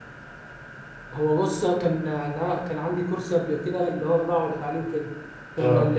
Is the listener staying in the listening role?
Yes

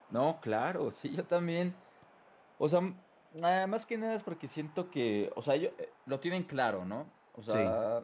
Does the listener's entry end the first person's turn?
No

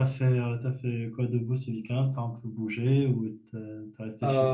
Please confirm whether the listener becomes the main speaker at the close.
Yes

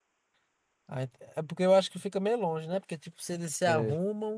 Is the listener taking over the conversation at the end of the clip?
No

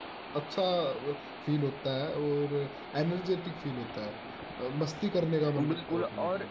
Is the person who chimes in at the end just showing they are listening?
No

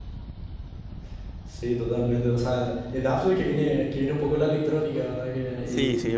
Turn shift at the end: Yes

